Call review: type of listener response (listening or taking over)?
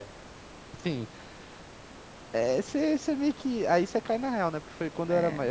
listening